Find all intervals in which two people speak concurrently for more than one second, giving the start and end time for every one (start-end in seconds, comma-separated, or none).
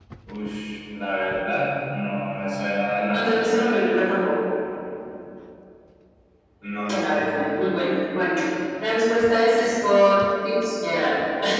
none